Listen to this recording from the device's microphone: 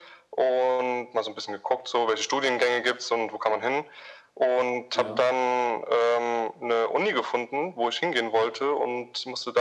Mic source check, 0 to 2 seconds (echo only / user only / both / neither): echo only